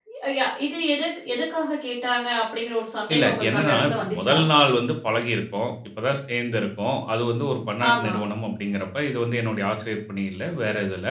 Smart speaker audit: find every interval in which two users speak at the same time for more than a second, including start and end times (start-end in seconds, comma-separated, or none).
3.1-4.4